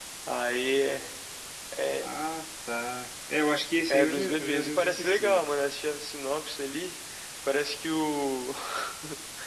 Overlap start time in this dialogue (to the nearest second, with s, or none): 4 s